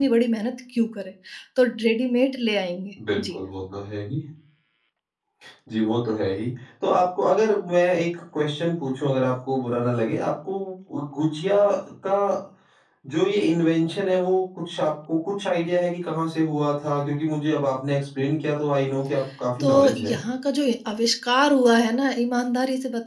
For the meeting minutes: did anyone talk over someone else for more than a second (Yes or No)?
No